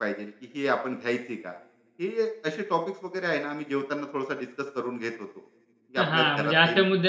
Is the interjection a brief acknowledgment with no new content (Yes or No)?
No